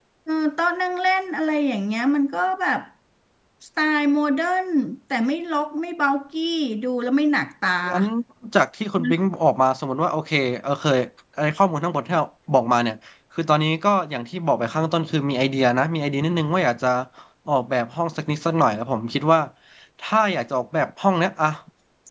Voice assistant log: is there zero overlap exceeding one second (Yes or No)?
Yes